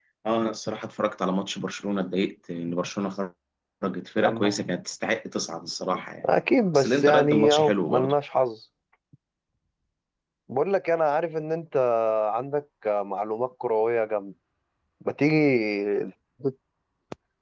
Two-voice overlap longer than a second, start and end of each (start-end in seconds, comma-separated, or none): 6.8-8.1